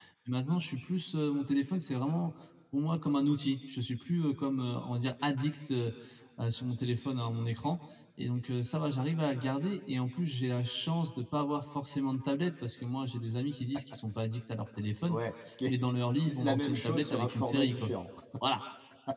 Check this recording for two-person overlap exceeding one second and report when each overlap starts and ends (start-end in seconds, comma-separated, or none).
16.2-17.9